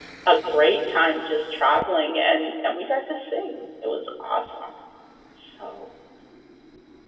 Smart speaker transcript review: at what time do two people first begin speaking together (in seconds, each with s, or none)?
none